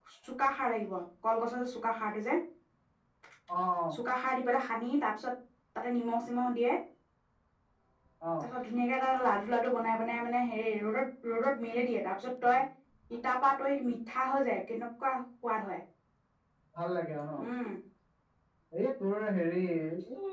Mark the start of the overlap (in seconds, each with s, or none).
none